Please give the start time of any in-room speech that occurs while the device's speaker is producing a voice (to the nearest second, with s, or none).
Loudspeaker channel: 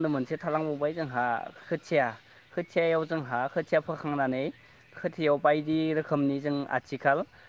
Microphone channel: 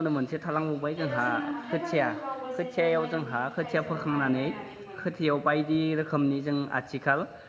1 s